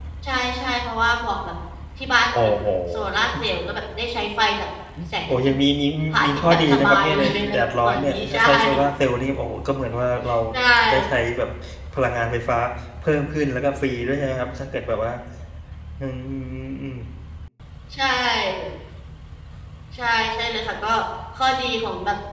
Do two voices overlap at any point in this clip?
Yes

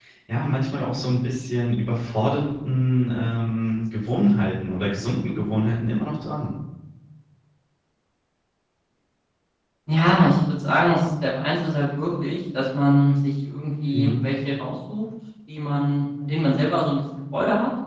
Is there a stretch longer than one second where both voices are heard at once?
No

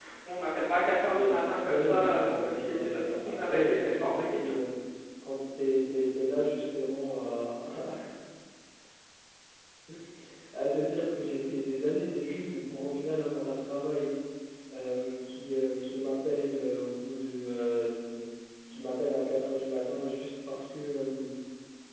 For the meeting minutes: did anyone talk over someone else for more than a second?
Yes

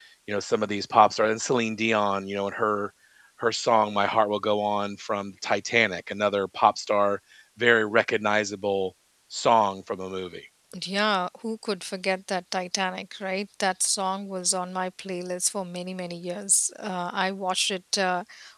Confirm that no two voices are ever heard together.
Yes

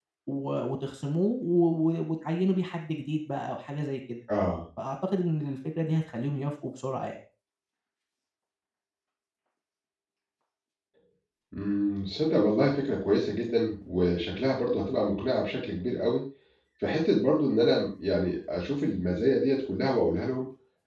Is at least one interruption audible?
No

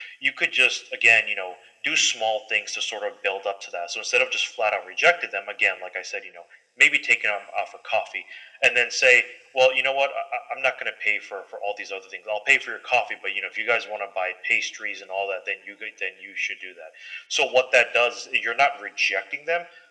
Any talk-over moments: No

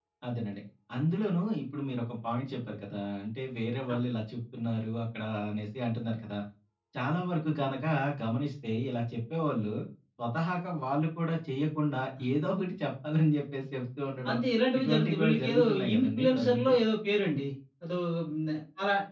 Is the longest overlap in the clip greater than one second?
Yes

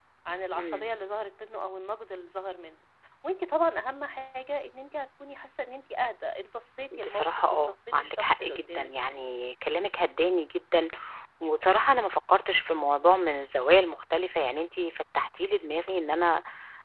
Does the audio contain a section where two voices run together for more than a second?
Yes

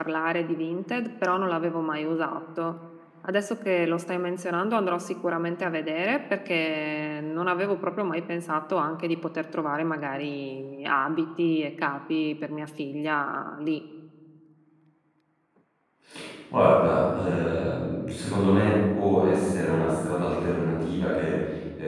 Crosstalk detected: No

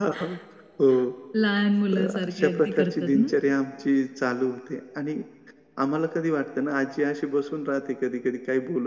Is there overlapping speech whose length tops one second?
Yes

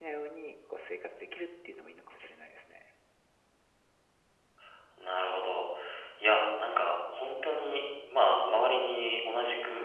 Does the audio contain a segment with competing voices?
No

